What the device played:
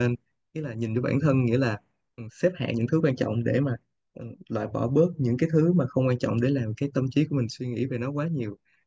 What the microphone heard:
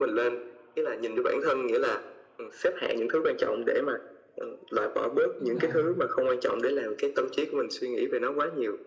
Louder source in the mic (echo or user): echo